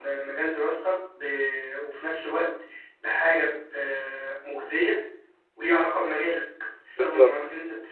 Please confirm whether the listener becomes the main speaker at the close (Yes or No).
No